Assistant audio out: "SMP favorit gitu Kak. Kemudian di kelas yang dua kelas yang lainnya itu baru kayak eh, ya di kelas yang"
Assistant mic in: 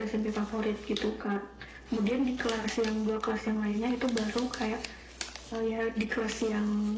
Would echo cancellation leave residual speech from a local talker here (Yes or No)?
No